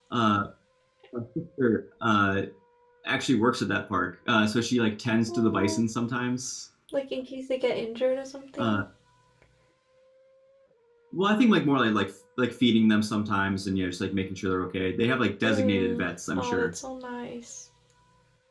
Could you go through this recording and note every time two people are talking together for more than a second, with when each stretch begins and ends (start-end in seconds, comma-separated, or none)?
15.4-16.7